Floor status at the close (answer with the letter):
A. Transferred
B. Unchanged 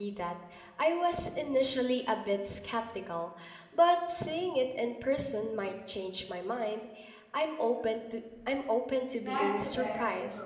A